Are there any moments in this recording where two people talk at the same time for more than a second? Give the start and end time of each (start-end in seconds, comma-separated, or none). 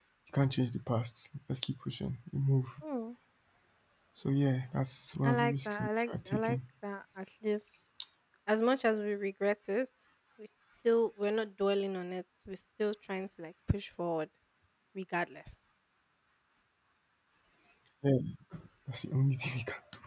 5.2-6.6